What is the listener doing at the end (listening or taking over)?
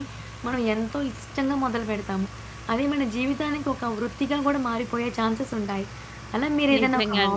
listening